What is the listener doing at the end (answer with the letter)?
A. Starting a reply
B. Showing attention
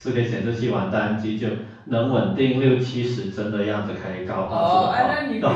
A